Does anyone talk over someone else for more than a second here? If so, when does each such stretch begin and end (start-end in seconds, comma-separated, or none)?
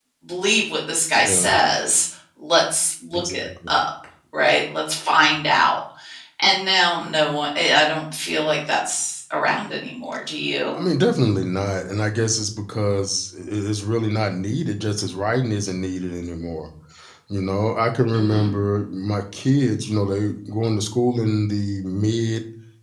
none